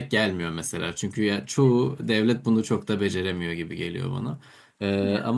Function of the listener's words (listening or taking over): listening